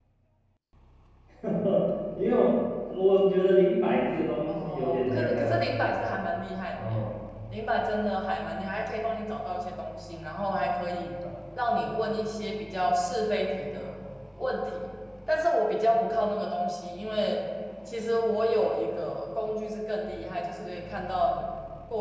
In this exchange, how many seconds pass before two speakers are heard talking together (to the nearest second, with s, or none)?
4 s